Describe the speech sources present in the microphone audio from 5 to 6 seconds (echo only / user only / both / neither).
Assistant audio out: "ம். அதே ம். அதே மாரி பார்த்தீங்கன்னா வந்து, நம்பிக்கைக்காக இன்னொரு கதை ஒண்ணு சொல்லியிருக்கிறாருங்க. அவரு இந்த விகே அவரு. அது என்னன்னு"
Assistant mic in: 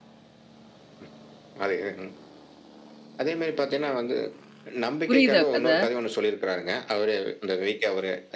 both